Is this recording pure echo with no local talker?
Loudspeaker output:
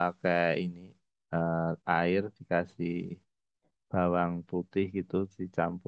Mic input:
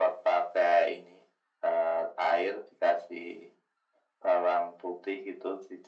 Yes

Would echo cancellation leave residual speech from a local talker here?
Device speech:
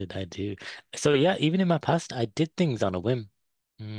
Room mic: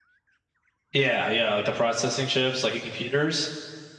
Yes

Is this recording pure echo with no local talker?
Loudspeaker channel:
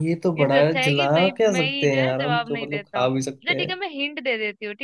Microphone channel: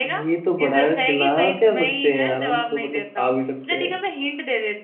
Yes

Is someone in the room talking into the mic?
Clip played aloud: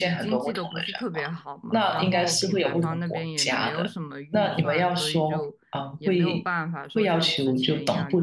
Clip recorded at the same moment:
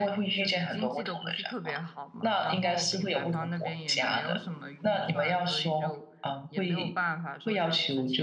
No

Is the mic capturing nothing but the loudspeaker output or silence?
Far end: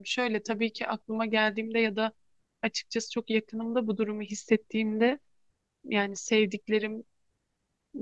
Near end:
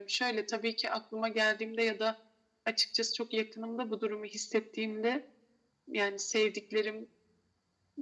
Yes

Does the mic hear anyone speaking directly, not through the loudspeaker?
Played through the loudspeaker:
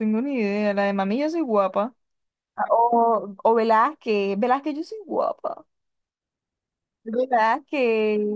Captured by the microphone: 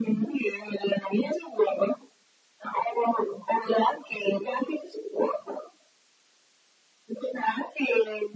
No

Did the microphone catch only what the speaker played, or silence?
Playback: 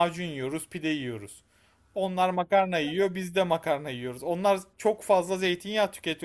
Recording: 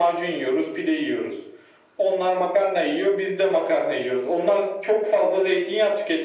Yes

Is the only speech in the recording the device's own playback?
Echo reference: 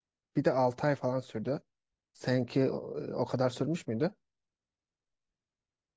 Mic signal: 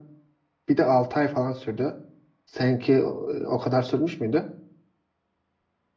Yes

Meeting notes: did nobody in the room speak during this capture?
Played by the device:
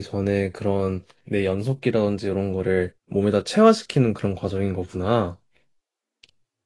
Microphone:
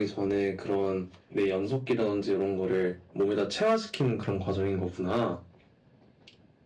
Yes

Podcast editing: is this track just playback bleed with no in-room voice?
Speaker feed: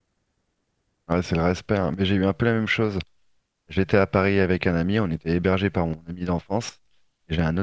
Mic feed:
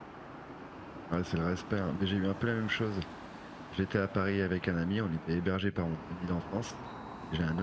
Yes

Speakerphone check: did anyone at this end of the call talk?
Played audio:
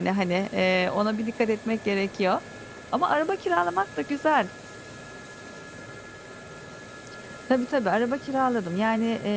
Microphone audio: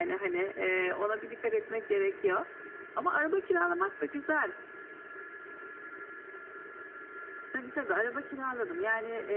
No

